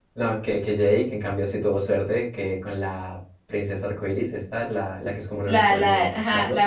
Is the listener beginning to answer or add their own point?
Yes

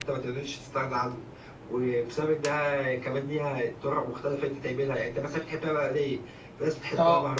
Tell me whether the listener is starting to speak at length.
No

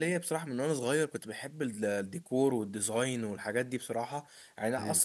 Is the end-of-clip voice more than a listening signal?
No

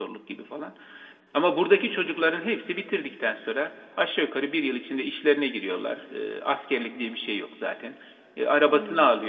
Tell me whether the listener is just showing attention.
Yes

